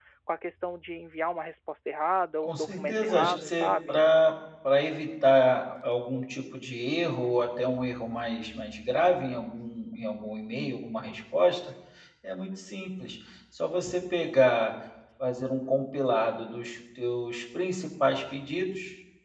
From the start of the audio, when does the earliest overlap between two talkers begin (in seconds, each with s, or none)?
2.4 s